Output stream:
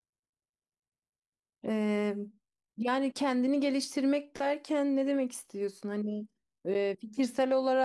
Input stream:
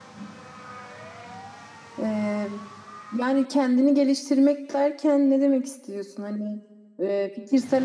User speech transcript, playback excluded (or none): none